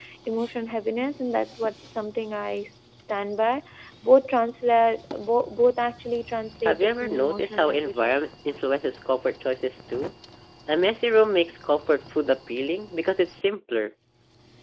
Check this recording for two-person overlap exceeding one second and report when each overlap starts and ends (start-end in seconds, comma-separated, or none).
6.7-8.2